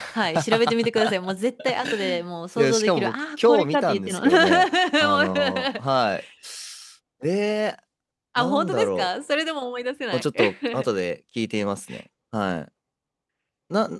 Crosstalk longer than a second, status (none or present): present